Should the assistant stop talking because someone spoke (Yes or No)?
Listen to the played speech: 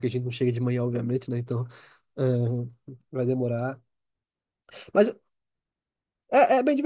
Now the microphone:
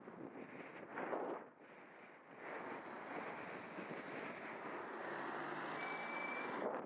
No